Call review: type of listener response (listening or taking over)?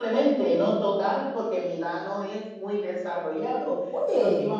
listening